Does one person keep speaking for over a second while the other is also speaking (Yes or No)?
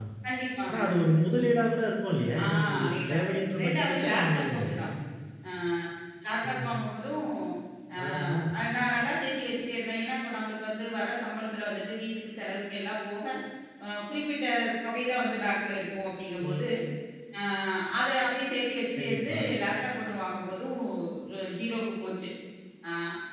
Yes